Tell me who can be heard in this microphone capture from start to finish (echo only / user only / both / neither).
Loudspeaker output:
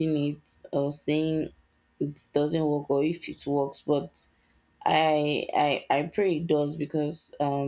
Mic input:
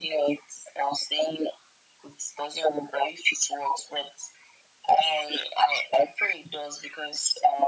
echo only